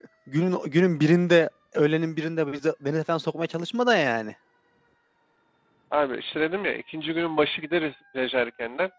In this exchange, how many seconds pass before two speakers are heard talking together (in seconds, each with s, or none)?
none